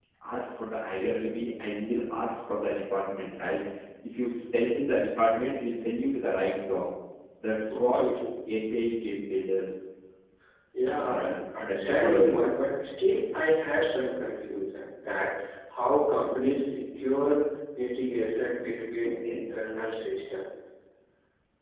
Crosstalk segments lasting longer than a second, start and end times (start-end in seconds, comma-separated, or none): 11.0-12.6